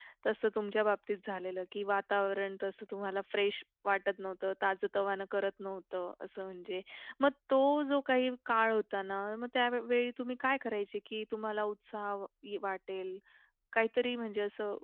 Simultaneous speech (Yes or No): No